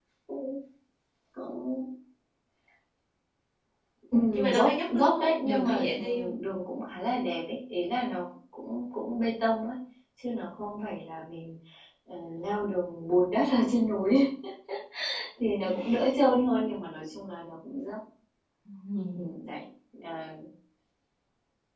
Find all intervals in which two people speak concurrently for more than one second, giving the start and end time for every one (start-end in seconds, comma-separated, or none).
4.3-6.3